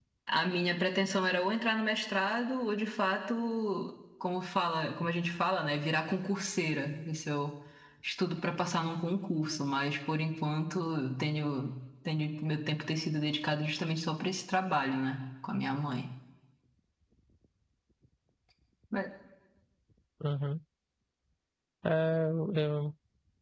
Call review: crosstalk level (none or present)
none